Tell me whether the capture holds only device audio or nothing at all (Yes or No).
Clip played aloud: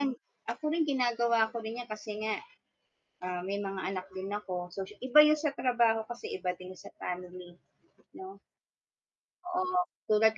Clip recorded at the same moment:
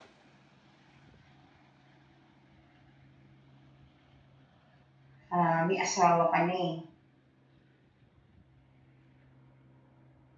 No